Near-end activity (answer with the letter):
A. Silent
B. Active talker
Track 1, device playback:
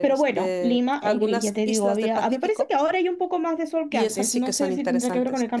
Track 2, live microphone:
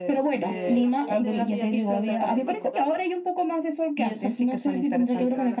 B